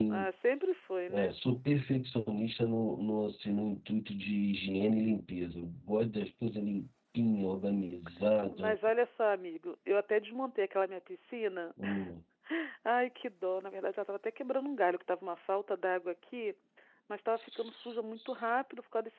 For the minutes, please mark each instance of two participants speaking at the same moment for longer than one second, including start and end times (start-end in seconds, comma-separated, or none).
none